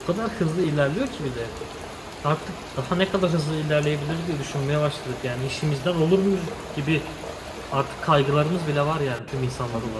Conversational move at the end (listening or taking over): taking over